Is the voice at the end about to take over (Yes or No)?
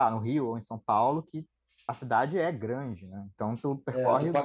Yes